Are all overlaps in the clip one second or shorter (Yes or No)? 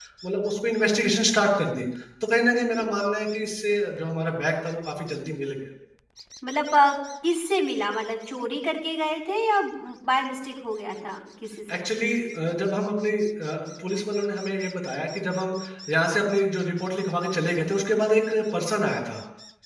Yes